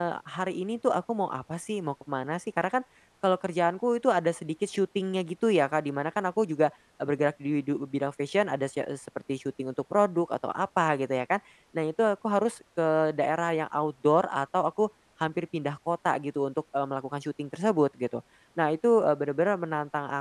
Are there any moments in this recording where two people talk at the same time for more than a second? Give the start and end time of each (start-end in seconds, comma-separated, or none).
none